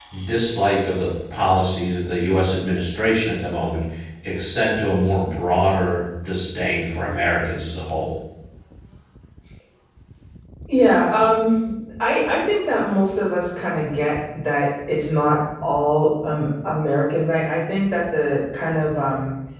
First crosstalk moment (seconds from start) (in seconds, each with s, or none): none